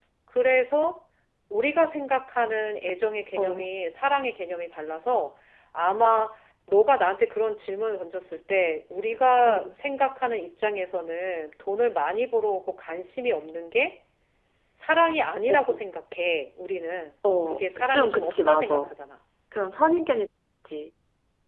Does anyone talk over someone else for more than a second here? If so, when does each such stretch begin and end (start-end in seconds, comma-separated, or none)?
17.5-18.9